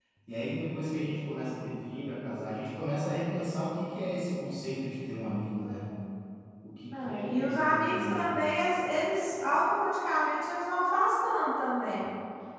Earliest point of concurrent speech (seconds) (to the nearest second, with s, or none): 7 s